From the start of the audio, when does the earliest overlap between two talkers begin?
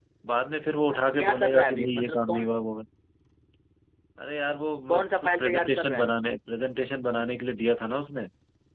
1 s

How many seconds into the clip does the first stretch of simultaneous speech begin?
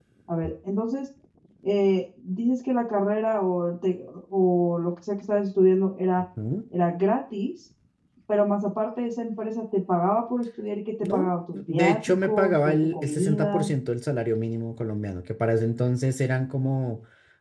11 s

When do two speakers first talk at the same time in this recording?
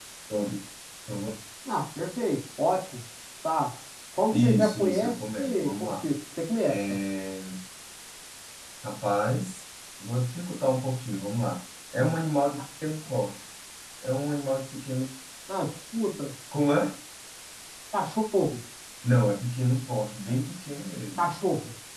4 s

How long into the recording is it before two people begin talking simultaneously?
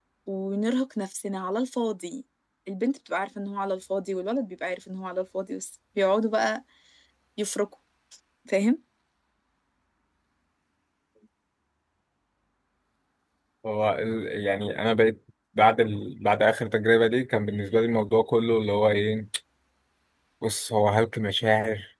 none

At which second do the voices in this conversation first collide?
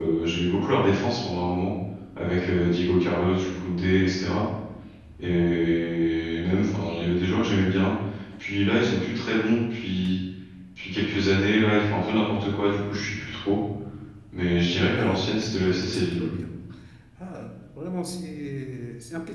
15 s

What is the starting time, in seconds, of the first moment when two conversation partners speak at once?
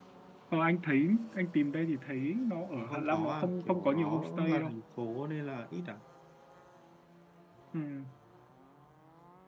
3 s

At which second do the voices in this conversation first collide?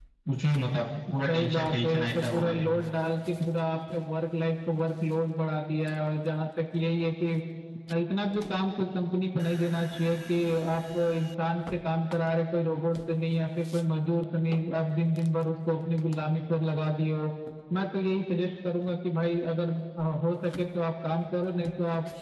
1 s

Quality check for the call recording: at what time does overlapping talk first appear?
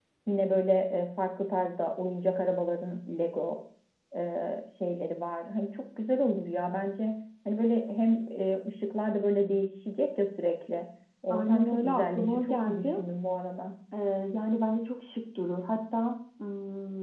11 s

